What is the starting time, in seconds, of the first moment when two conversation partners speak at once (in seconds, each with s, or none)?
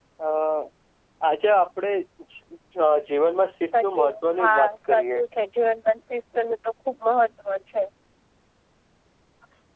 3.7 s